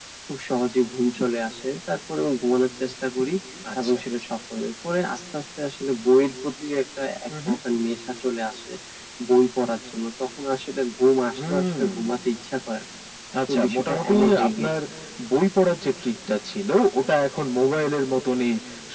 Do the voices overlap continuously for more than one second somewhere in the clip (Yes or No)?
Yes